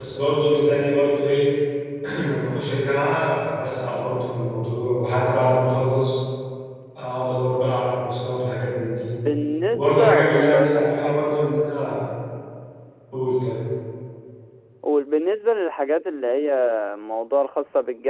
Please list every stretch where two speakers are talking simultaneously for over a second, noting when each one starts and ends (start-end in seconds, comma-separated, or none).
9.7-11.2